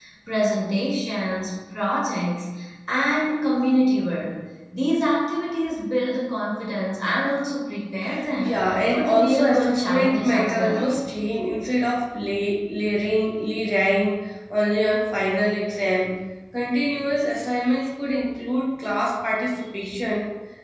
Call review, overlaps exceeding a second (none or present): present